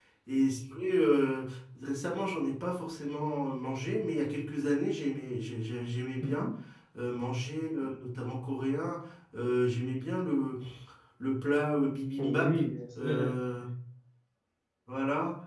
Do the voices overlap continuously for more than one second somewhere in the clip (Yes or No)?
No